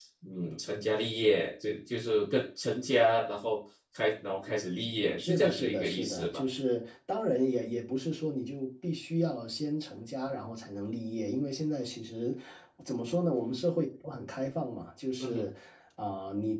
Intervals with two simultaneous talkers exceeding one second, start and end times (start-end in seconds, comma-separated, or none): 5.2-6.4